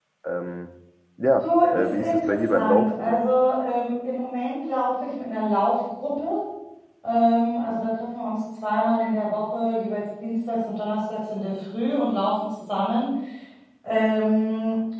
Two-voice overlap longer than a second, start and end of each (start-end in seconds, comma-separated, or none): 1.4-3.2